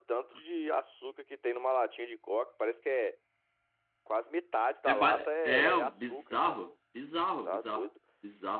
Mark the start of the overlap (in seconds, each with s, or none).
4.9 s